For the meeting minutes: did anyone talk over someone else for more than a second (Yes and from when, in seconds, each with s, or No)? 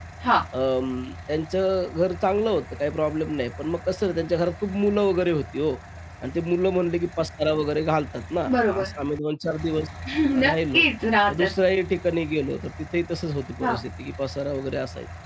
No